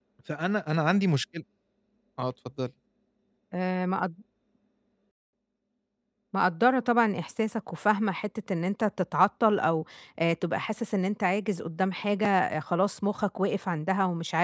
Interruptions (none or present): none